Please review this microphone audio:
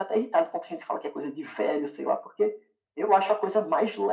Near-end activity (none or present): none